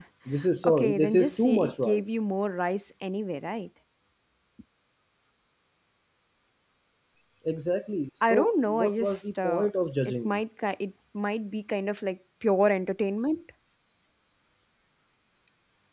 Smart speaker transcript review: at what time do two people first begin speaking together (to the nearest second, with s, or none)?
1 s